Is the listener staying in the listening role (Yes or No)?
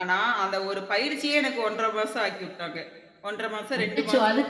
No